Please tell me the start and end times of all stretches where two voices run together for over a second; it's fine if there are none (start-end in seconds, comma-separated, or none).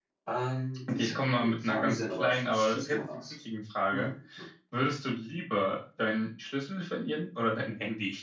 0.9-3.3